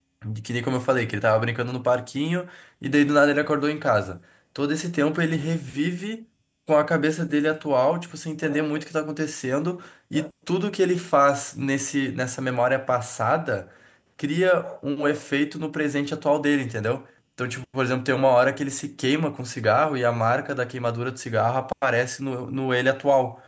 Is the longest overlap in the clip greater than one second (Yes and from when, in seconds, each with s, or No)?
No